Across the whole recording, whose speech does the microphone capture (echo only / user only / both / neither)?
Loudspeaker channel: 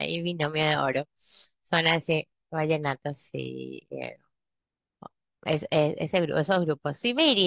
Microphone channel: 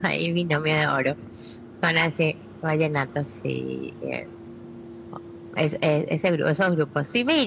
echo only